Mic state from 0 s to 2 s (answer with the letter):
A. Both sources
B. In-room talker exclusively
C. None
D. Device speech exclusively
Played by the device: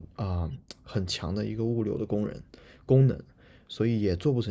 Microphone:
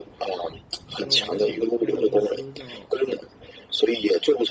A